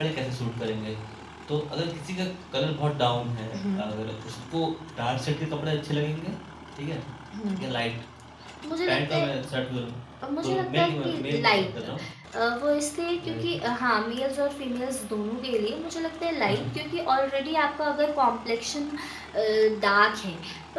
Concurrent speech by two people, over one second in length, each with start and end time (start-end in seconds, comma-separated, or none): 10.4-11.8